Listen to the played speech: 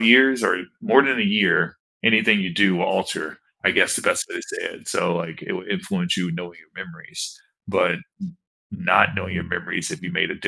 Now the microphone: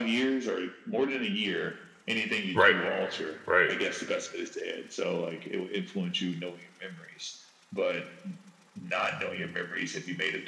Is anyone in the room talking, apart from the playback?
Yes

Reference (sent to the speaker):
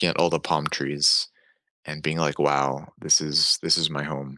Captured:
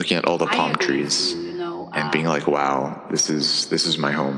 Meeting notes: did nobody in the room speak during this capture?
No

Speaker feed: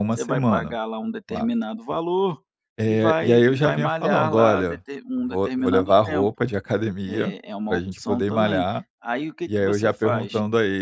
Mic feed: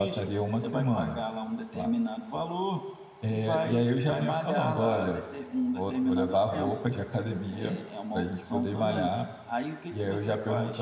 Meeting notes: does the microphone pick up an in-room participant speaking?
No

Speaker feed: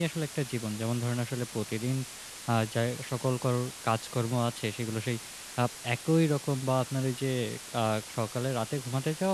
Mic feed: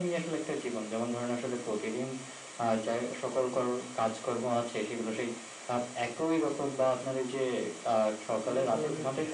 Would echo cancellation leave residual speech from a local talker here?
Yes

